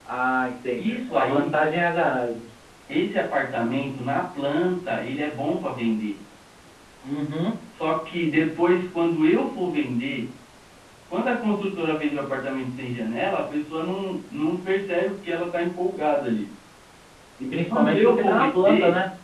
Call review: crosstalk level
present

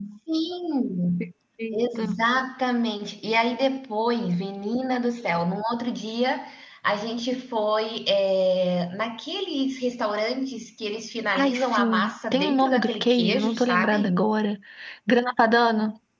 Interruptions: present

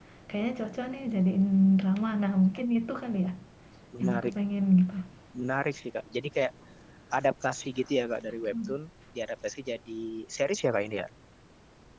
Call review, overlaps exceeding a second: none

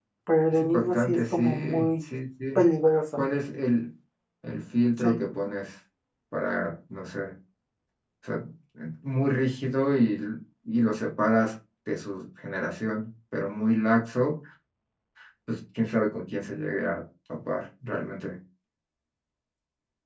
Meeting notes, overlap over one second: present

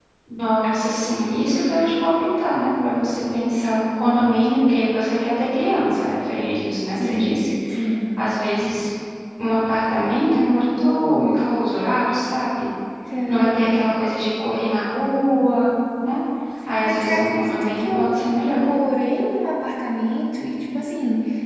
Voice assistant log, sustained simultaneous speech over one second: present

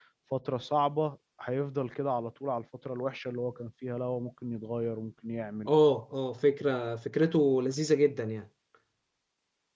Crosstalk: none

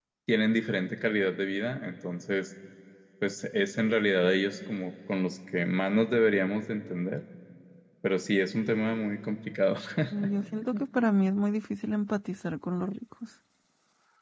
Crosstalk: none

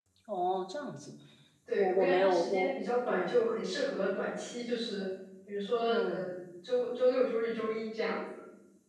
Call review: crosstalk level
present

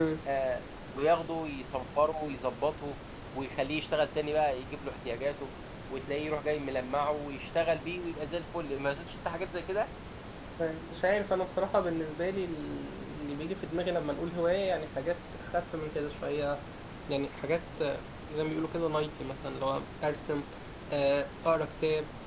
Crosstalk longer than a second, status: none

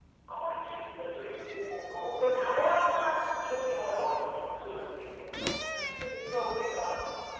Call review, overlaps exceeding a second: present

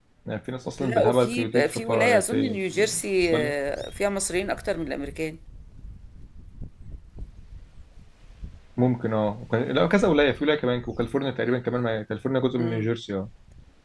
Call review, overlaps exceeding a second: present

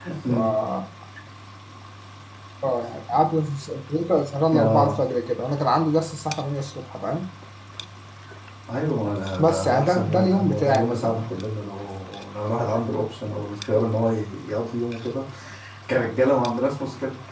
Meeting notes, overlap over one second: present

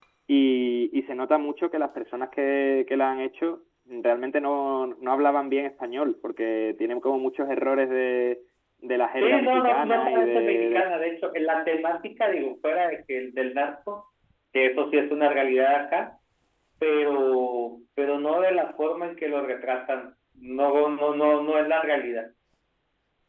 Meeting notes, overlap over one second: present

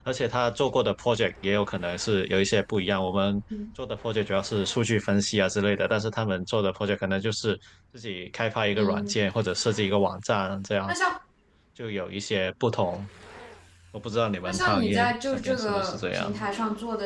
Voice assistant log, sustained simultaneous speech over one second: present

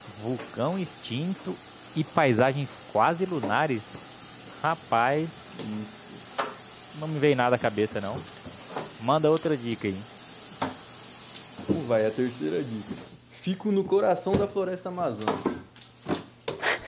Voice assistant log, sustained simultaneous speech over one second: none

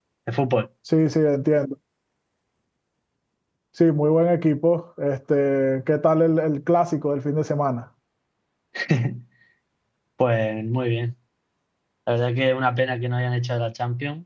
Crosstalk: none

